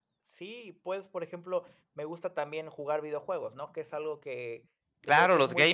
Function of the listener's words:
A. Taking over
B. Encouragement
A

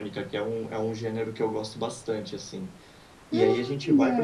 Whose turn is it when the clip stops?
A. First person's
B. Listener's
A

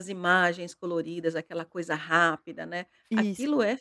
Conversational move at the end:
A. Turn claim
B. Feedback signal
B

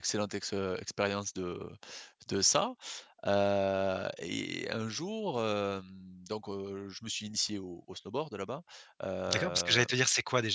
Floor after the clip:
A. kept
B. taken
B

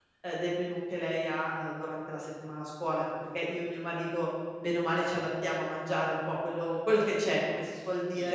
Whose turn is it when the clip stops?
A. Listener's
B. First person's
A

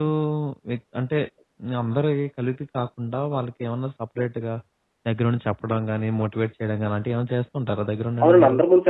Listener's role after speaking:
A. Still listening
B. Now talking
B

